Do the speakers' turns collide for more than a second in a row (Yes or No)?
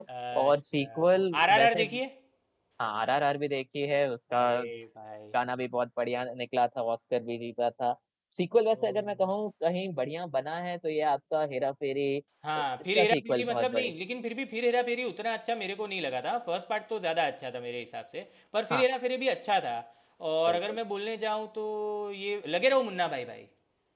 Yes